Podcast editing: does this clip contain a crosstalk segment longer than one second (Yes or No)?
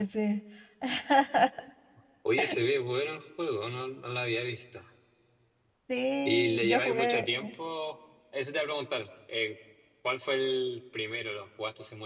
Yes